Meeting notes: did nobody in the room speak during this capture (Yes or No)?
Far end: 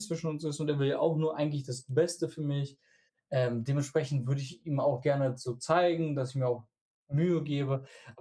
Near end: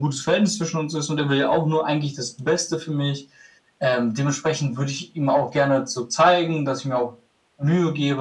Yes